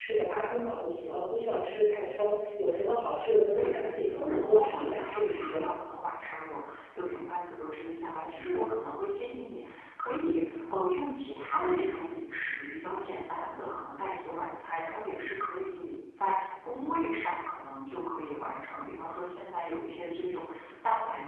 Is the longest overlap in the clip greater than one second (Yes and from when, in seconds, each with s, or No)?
Yes, from 3.5 s